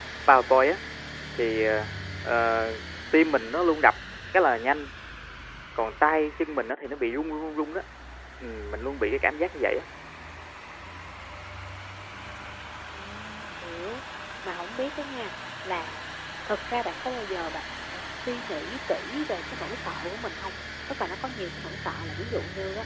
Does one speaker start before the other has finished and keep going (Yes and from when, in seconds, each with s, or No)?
No